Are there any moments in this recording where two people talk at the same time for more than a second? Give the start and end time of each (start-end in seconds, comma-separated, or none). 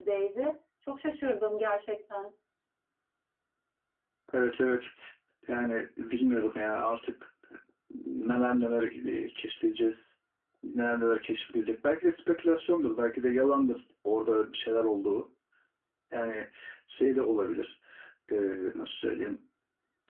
none